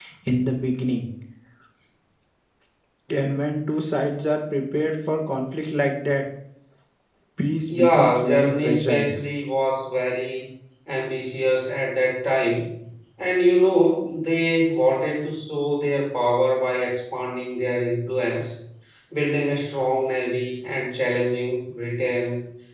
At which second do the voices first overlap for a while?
7.7 s

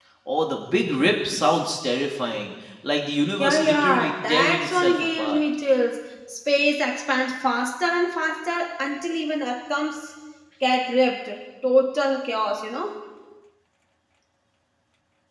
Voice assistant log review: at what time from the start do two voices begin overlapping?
3.4 s

